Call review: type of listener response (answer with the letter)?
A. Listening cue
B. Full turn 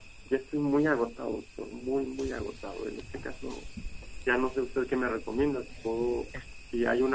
A